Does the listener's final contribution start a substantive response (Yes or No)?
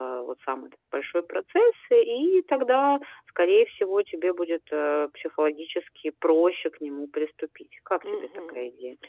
Yes